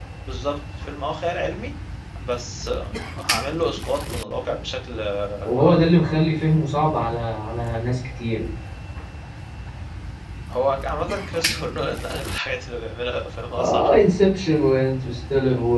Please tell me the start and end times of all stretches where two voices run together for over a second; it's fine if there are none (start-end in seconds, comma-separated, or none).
none